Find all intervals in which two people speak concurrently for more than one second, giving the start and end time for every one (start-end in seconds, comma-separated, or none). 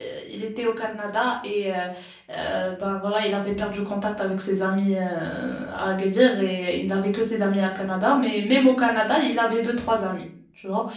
none